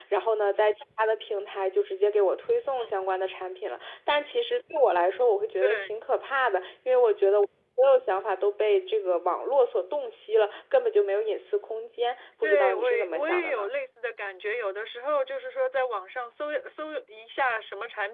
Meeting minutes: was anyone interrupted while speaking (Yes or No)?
Yes